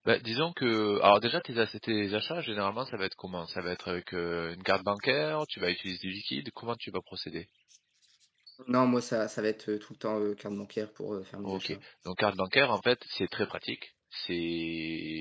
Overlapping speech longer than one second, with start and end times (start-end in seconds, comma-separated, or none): none